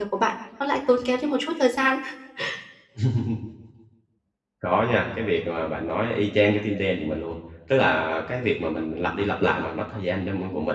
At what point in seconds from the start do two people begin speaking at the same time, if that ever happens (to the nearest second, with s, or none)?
none